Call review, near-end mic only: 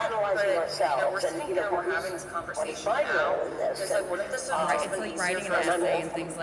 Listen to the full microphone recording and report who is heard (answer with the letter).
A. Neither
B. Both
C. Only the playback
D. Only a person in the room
B